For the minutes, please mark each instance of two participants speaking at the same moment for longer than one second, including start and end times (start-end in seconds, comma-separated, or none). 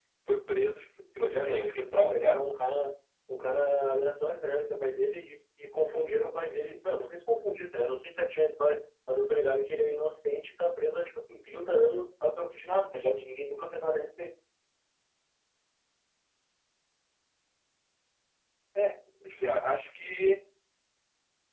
1.2-2.4